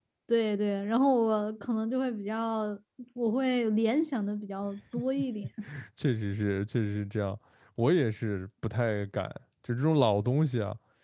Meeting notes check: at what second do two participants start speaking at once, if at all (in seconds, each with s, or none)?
none